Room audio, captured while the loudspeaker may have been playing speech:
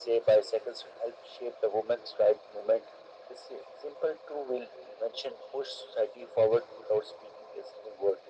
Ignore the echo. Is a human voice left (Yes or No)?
No